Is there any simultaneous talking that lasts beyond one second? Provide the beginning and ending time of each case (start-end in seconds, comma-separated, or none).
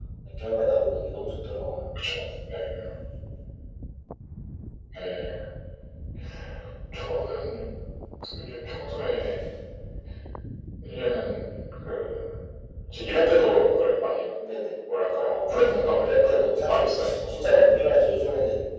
15.1-17.5